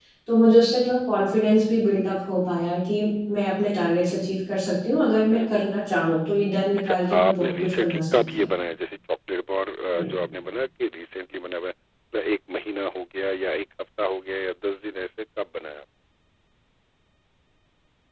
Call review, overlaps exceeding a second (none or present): present